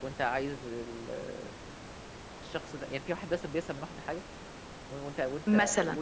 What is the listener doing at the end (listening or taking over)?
listening